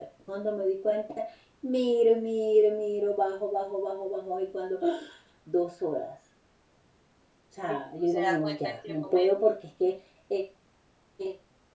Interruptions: present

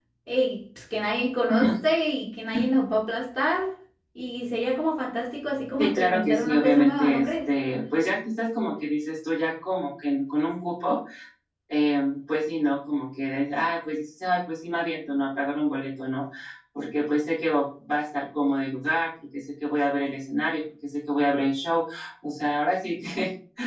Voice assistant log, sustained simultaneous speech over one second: present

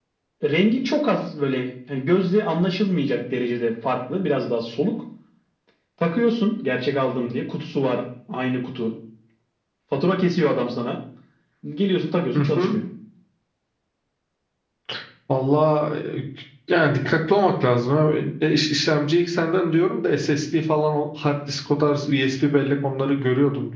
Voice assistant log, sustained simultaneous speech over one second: none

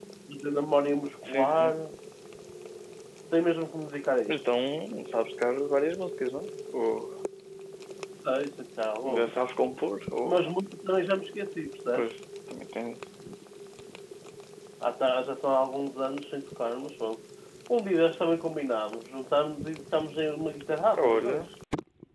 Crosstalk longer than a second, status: none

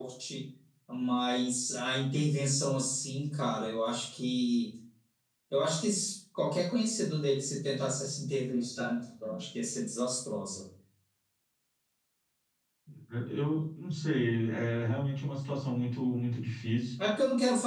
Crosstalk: none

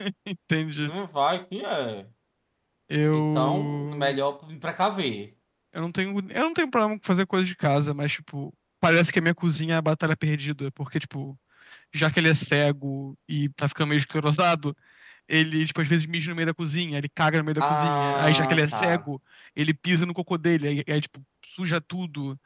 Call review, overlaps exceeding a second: present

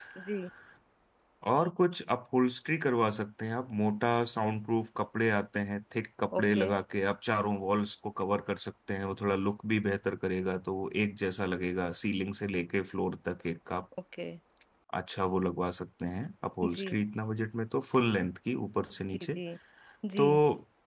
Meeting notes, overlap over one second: none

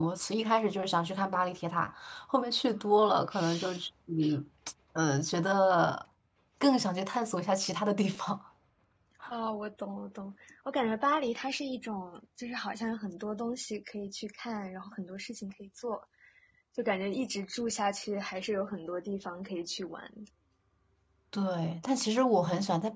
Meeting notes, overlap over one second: none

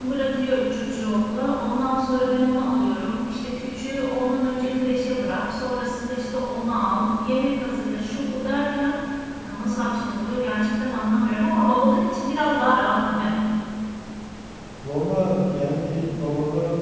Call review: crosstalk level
none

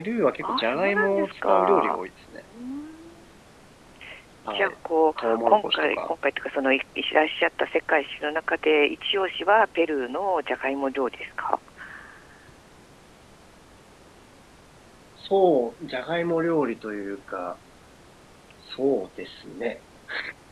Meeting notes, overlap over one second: present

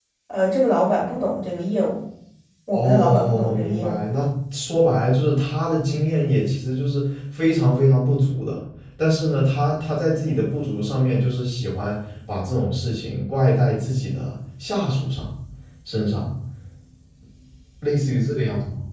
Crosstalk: present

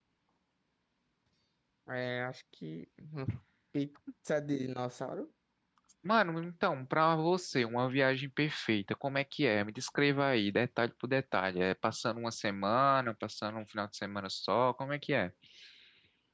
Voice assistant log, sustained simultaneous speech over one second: none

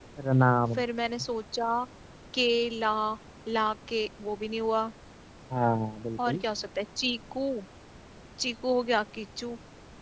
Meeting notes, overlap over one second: none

